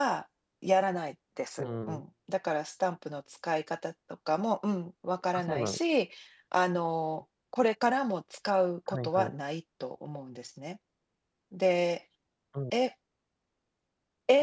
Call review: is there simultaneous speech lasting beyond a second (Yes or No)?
No